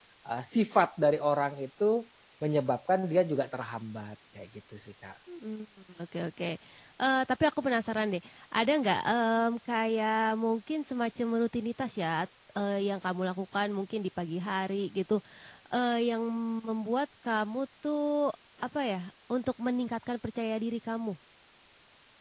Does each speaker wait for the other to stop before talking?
Yes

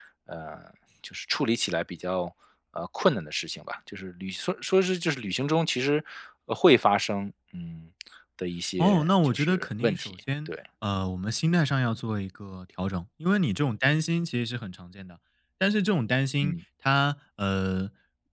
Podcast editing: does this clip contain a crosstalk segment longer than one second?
Yes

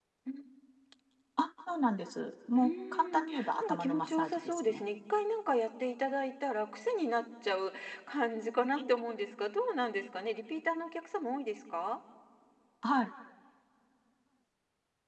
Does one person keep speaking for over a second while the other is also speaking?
Yes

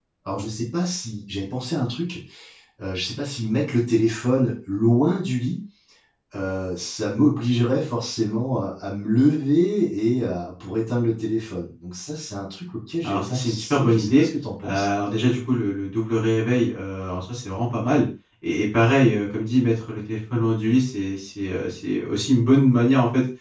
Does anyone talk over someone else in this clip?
Yes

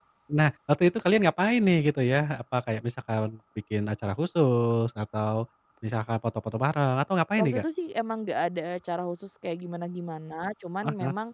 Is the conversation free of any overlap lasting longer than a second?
Yes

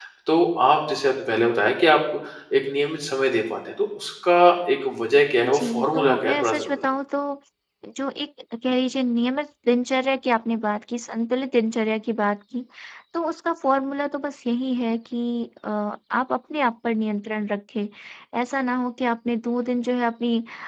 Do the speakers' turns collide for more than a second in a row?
Yes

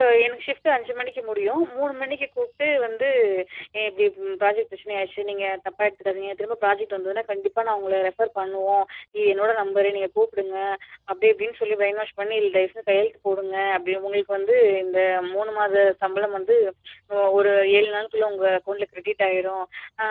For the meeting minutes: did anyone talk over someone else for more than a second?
No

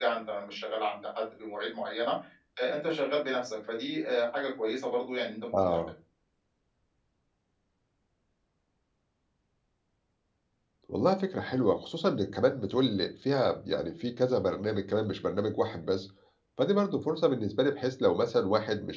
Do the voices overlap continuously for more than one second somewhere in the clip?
No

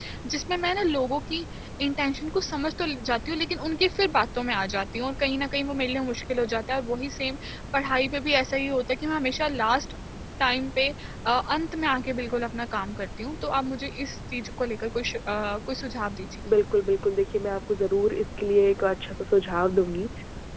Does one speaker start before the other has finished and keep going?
No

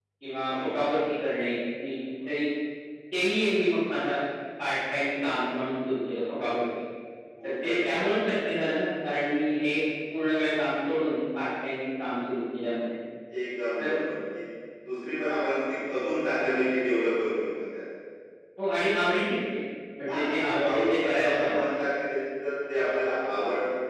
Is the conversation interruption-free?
No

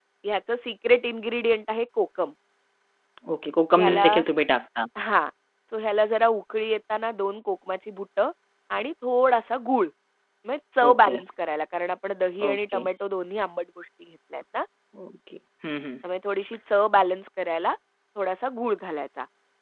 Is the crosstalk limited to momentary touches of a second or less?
Yes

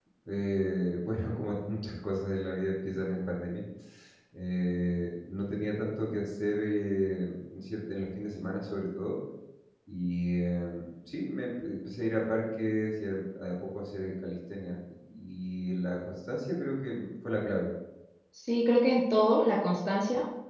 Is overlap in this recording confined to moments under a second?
Yes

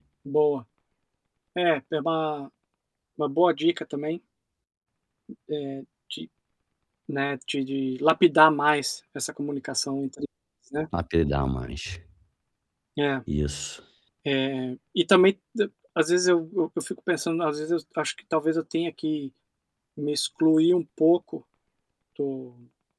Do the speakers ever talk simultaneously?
No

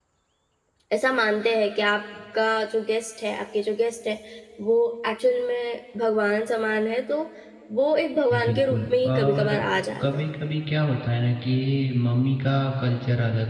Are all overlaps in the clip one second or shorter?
No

